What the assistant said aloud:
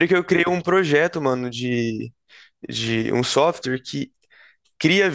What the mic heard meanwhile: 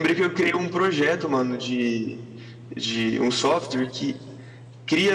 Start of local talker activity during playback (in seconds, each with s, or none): none